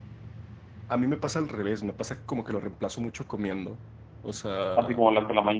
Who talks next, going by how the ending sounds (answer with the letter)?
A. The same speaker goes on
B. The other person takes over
B